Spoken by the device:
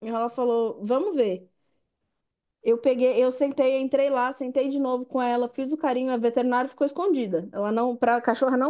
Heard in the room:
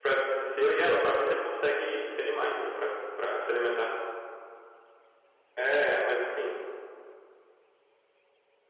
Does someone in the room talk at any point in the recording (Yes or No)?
Yes